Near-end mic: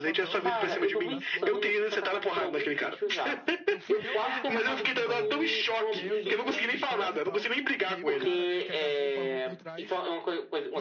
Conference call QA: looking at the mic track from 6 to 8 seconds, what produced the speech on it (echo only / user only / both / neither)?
both